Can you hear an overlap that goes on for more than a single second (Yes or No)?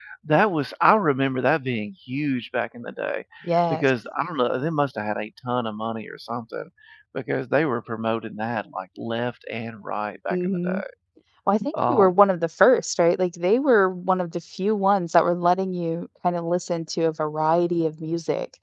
No